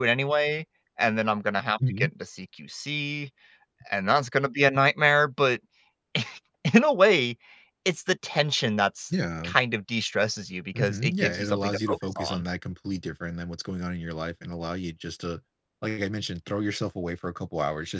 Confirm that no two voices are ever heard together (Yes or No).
No